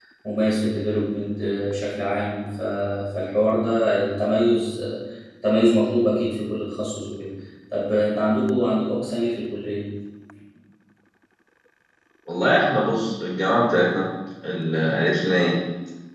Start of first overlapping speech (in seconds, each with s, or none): none